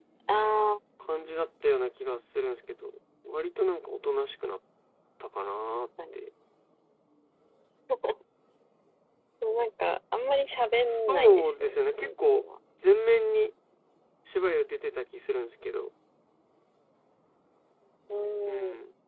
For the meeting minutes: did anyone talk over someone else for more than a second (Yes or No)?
Yes